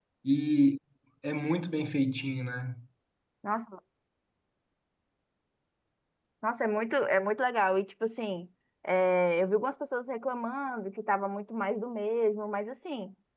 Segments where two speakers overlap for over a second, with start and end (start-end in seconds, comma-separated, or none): none